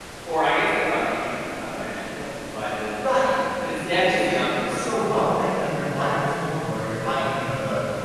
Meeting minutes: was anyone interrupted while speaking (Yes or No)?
Yes